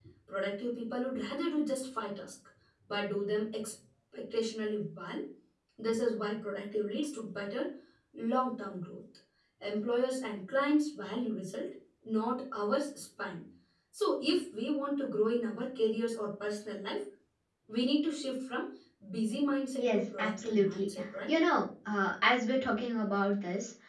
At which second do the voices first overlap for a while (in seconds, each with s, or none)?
19.7 s